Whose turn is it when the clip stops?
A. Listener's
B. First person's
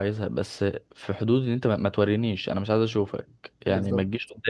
B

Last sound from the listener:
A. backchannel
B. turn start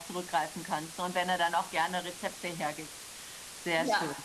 B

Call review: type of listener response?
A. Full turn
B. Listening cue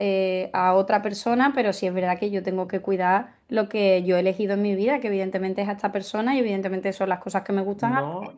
A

